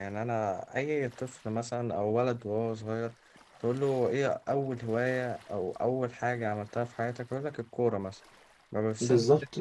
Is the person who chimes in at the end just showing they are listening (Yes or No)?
Yes